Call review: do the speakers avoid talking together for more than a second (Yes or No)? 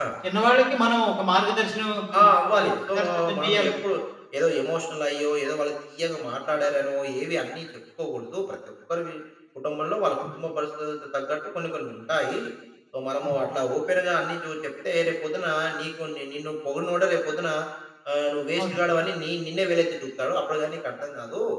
No